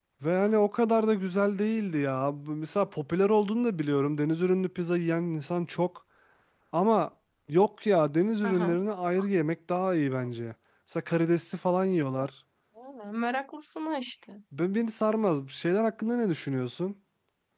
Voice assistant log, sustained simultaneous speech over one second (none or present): none